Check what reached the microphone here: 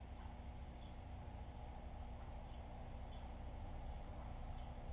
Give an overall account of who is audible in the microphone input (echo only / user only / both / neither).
neither